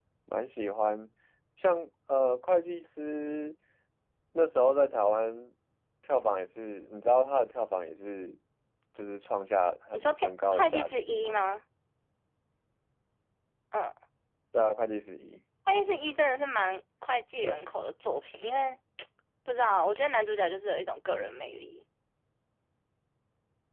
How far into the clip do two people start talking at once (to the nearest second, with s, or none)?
10 s